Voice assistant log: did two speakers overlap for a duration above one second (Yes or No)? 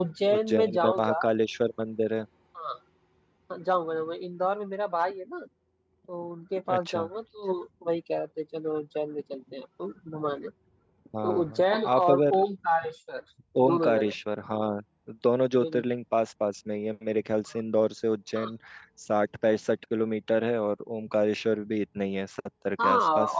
Yes